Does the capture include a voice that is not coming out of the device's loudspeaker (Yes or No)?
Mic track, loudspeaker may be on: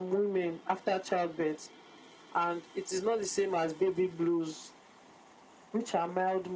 No